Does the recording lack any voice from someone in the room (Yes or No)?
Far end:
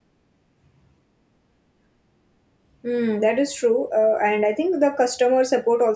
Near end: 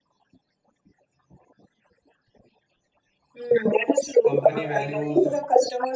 No